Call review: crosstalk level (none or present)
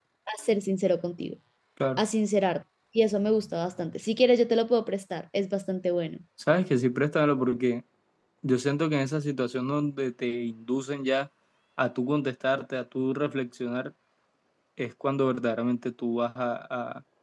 none